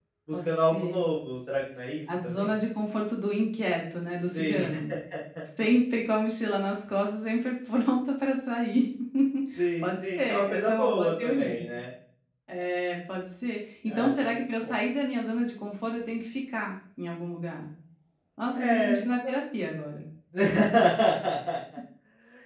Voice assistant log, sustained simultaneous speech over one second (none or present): present